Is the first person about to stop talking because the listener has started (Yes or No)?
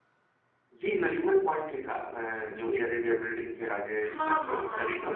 Yes